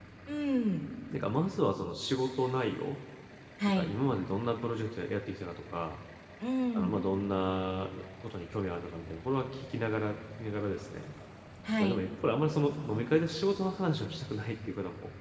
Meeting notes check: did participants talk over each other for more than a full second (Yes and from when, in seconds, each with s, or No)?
No